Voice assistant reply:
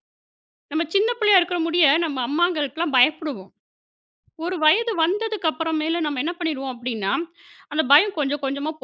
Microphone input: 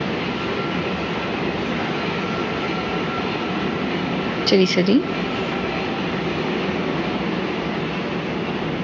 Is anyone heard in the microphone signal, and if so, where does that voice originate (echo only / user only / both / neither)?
user only